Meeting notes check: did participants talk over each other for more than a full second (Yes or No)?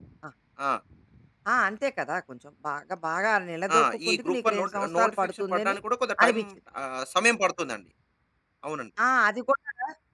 Yes